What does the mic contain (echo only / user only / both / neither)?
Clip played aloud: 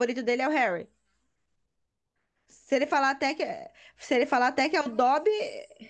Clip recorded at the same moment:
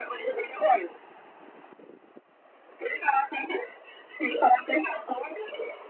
echo only